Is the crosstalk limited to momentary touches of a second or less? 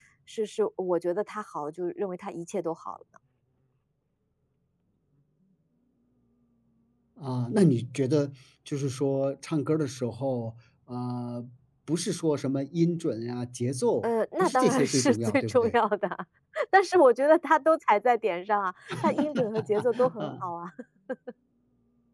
No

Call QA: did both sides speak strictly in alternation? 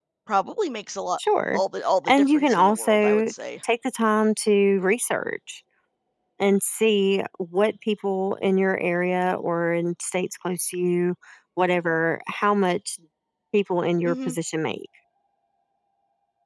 No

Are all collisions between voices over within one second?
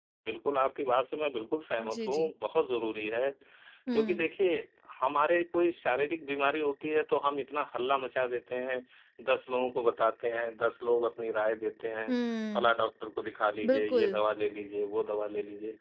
Yes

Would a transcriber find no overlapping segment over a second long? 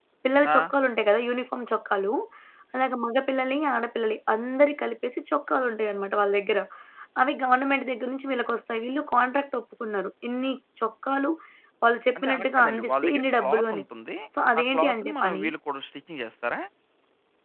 No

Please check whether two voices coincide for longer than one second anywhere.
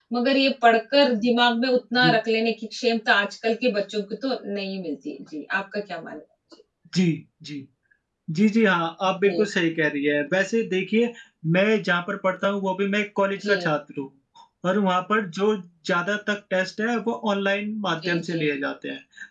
No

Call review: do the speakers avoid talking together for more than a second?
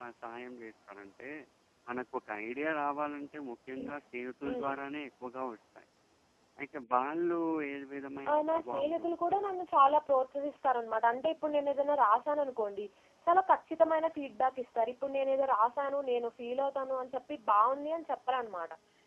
No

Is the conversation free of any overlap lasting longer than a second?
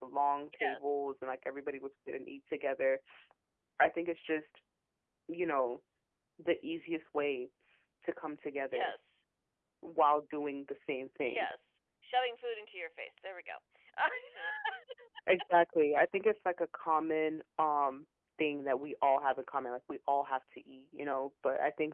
Yes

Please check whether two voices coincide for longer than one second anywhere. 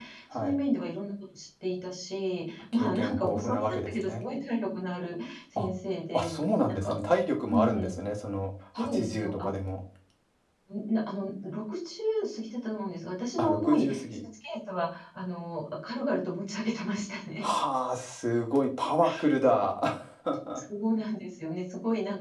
Yes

